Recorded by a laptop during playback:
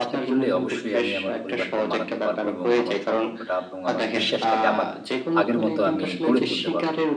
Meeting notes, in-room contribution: present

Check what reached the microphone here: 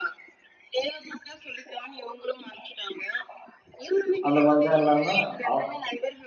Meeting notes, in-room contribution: present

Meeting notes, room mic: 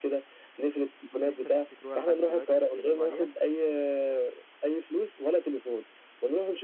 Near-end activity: present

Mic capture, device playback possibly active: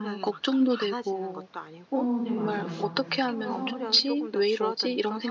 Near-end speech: present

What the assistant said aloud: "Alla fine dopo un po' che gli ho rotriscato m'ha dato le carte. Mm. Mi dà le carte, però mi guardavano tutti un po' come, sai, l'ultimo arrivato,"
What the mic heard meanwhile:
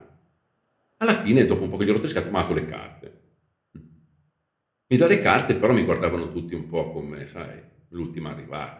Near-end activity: none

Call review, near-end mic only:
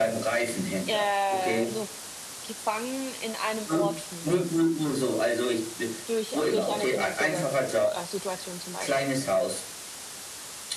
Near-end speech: present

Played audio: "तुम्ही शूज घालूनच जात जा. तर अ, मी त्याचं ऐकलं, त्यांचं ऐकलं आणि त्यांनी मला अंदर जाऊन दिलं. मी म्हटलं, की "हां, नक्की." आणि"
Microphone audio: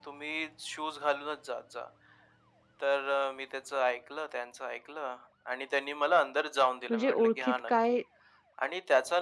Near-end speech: present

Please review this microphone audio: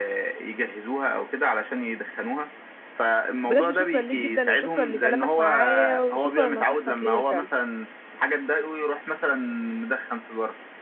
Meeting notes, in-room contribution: present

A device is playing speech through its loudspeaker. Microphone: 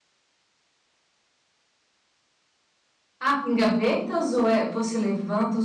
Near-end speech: present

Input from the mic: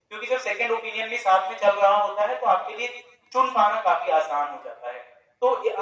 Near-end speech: none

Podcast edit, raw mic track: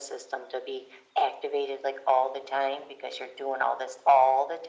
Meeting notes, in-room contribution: none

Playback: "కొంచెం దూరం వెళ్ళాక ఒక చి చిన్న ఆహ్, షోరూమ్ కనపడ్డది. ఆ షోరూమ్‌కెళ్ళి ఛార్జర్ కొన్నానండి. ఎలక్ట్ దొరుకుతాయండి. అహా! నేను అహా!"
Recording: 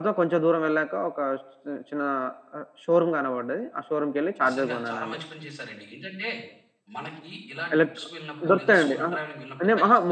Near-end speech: present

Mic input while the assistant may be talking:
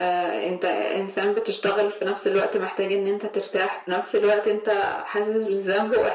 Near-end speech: none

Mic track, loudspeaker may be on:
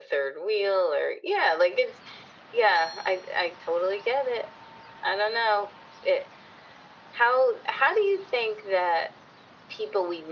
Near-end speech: none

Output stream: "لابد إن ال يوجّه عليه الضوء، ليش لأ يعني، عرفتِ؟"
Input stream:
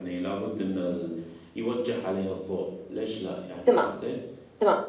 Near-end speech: present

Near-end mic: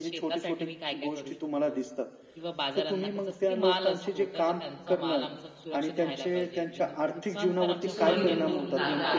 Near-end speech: present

